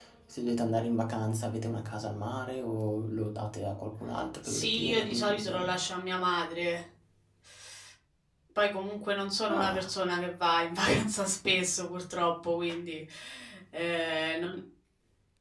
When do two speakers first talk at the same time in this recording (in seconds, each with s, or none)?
4.4 s